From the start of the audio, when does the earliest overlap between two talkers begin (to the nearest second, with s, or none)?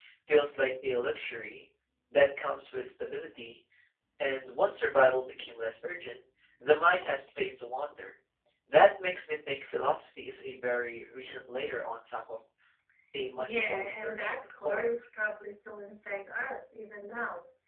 13 s